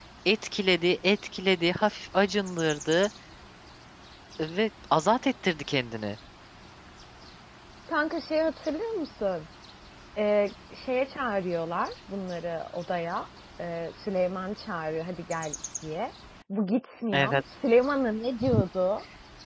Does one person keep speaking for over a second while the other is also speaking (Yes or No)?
No